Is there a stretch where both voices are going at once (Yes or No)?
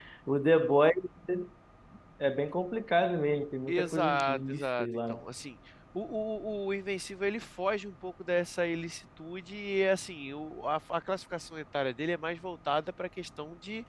Yes